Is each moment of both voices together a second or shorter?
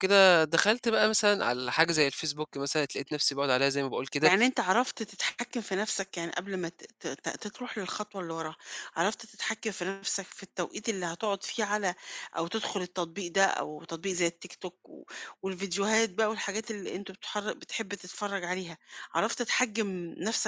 Yes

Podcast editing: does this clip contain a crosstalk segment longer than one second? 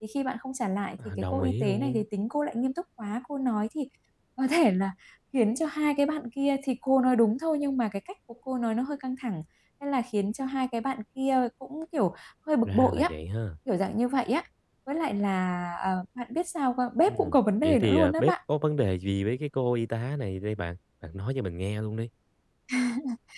Yes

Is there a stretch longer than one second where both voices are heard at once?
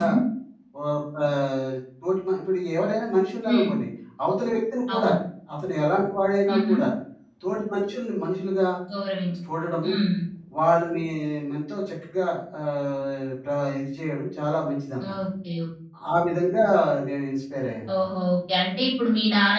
No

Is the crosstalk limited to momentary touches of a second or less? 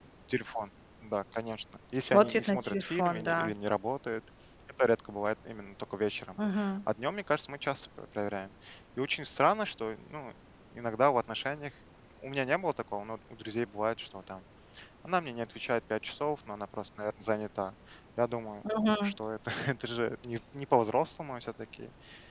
No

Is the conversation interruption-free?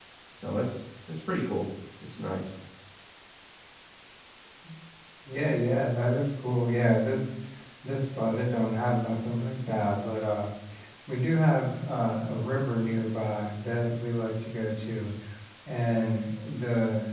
Yes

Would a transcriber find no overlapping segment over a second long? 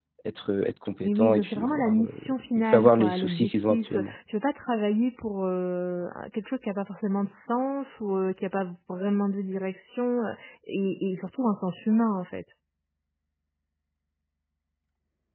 No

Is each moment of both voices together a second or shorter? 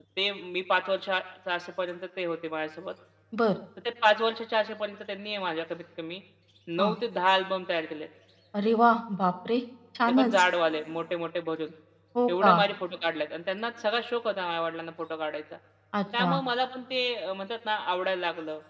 Yes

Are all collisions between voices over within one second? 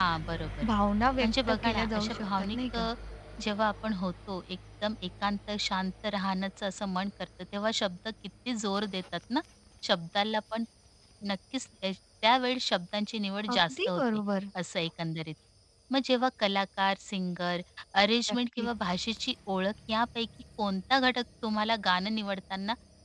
No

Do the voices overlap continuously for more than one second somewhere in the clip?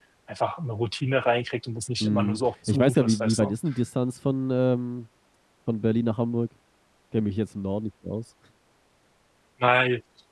Yes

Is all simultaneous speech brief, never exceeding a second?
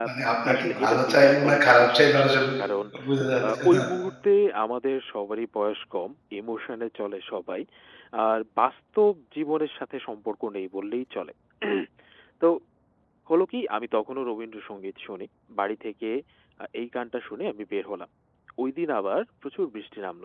No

